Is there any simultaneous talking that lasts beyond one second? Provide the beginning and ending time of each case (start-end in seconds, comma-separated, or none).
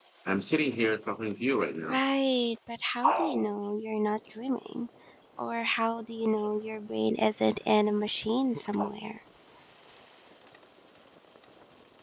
none